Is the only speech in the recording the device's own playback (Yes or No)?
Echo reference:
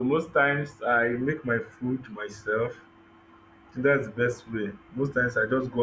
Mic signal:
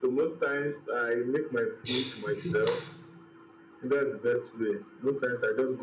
No